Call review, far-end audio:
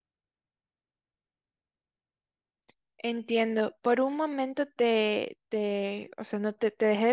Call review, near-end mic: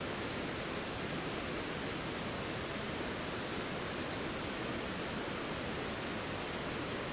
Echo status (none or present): none